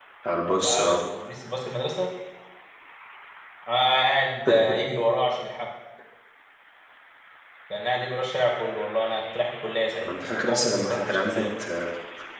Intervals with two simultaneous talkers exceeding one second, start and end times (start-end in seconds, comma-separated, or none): 10.0-11.4